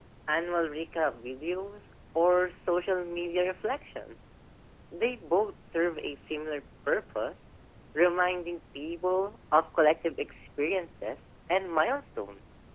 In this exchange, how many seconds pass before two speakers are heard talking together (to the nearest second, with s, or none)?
none